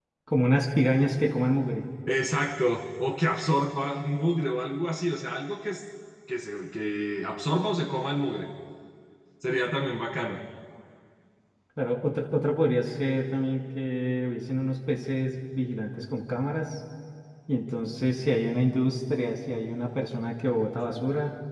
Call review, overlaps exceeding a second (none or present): none